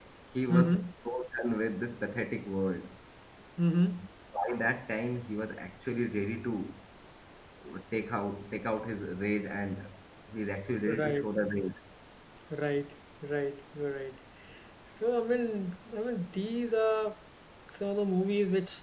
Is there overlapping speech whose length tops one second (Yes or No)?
No